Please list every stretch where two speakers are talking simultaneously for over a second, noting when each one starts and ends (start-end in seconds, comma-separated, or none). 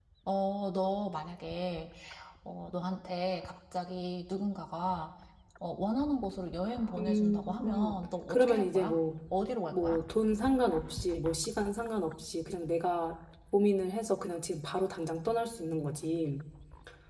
7.0-8.9